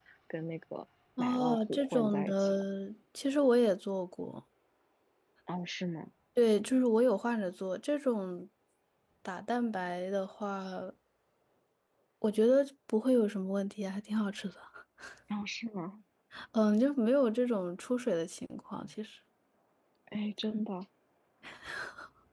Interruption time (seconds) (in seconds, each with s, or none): 1.2 s